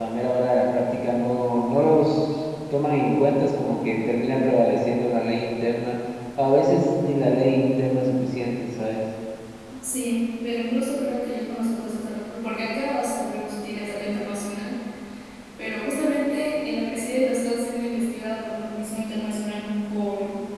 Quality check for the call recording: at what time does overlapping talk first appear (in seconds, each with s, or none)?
none